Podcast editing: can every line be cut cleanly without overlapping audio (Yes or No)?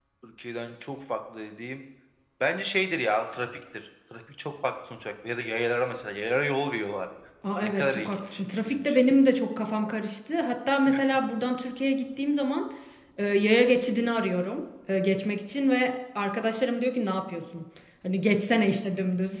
No